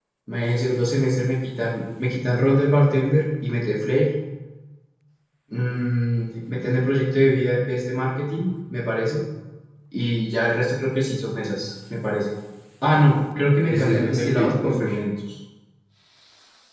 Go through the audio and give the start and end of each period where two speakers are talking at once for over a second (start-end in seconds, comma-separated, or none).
13.7-14.9